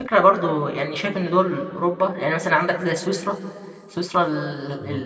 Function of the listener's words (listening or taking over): listening